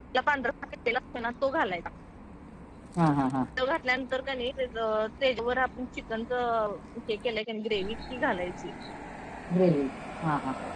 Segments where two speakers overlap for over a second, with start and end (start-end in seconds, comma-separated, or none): none